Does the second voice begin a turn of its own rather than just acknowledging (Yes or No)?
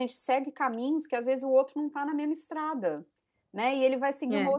No